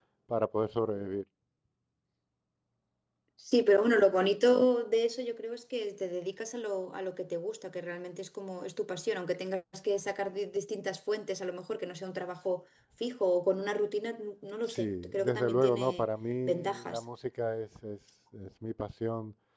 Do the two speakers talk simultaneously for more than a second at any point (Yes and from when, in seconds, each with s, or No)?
Yes, from 14.7 s